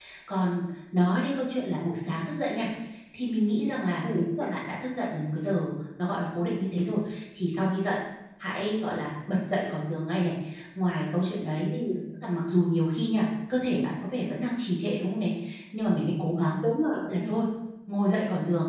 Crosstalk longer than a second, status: none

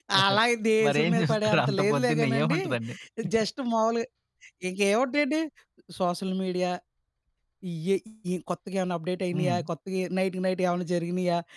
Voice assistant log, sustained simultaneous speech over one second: present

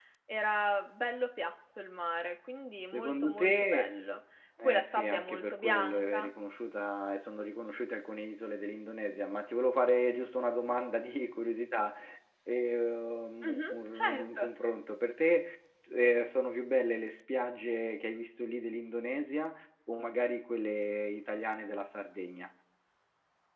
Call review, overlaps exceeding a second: present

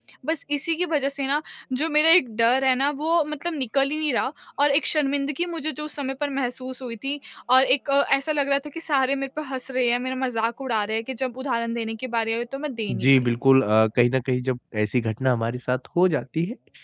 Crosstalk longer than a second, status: none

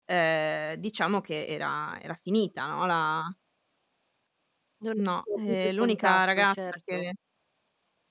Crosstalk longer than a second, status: present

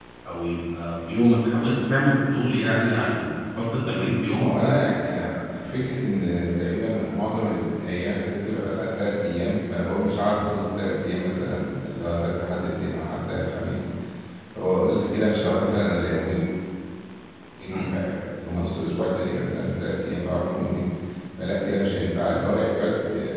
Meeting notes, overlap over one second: none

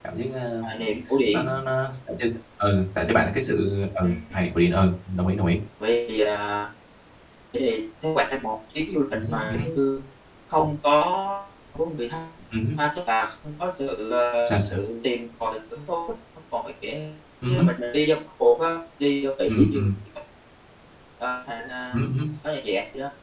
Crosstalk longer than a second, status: none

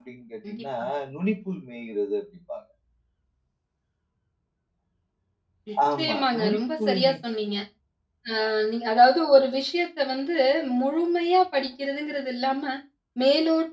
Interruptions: present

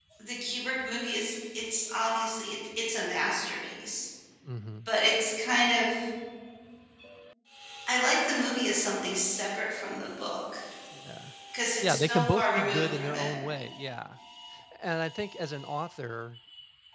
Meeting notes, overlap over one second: present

